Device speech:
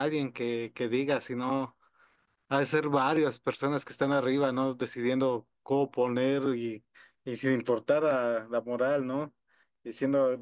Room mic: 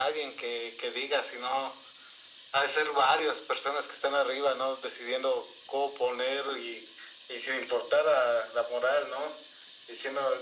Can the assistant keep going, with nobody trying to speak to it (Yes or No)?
Yes